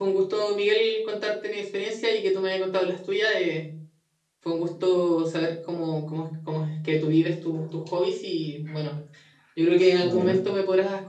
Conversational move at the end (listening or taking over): listening